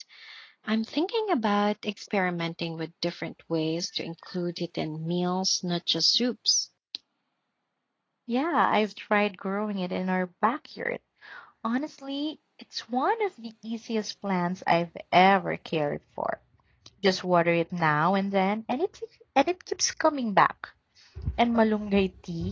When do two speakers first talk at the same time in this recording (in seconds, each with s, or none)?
none